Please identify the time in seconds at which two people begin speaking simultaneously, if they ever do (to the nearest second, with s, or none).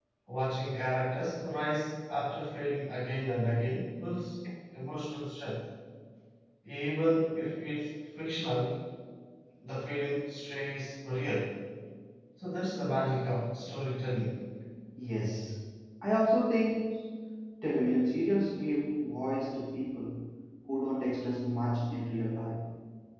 none